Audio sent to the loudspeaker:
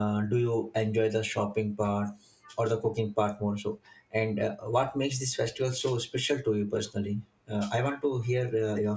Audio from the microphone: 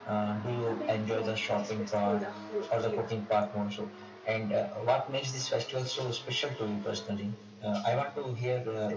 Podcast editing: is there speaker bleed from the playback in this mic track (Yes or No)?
Yes